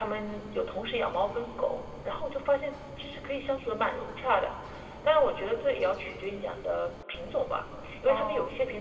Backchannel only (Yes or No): Yes